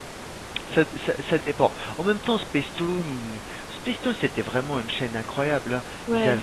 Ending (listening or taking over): listening